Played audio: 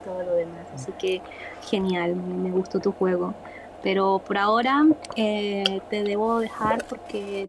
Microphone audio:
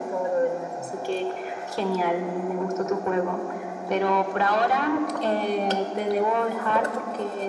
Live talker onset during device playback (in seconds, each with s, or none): none